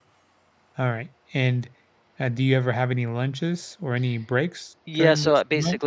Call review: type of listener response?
taking over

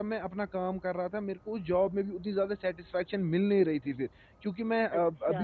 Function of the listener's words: listening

